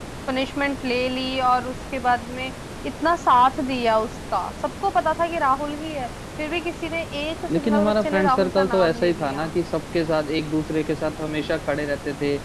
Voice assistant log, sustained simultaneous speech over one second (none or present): present